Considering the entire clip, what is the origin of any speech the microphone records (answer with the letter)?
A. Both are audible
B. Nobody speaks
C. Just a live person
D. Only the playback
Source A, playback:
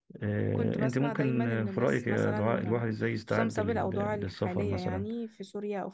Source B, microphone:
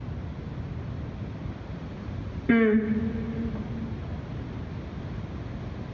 C